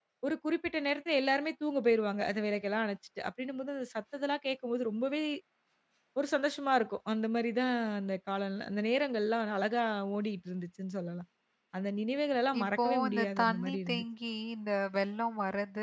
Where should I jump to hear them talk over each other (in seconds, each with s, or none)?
12.6 s